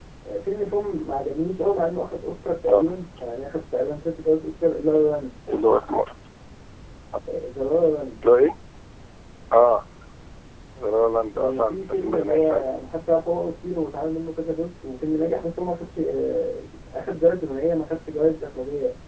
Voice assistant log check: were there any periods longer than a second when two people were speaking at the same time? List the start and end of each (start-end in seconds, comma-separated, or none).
11.3-12.7